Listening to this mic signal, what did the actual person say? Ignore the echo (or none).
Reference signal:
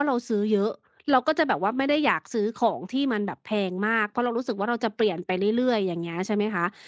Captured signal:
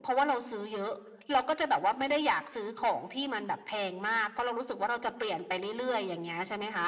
none